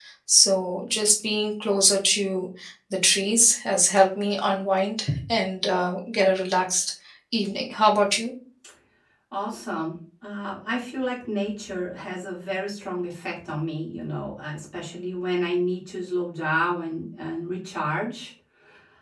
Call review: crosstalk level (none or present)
none